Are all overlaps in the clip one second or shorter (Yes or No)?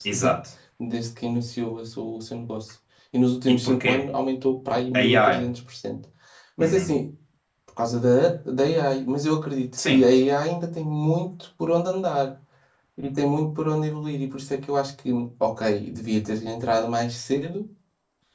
Yes